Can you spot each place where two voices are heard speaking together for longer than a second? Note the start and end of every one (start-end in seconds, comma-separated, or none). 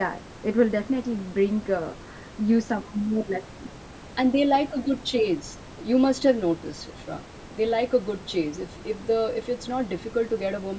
none